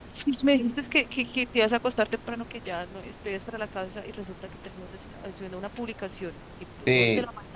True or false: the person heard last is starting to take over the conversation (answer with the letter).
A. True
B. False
A